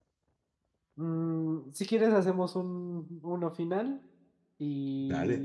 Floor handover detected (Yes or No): No